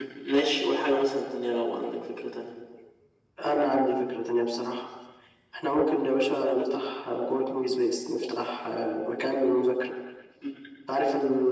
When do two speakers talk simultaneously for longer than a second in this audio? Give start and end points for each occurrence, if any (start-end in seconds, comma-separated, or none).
none